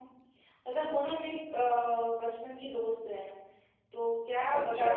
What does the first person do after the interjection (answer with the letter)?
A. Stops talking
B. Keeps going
B